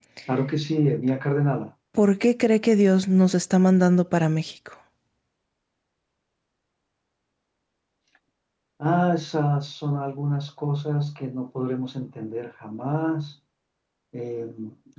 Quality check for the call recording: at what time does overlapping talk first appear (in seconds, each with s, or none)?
none